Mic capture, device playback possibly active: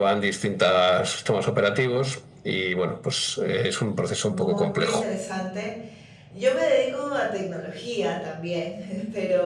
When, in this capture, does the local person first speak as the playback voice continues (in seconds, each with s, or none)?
4.3 s